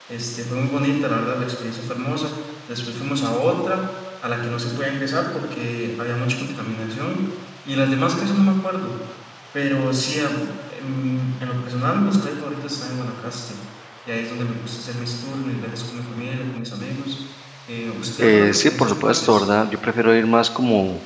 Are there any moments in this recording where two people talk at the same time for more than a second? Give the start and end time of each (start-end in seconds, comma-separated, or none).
18.2-19.4